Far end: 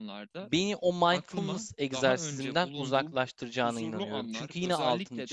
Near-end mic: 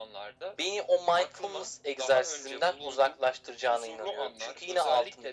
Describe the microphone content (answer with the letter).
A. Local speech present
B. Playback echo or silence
B